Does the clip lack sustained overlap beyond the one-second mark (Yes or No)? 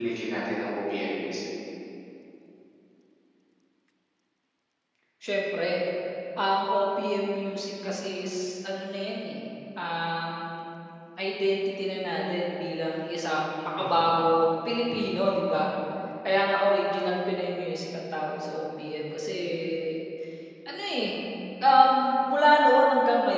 Yes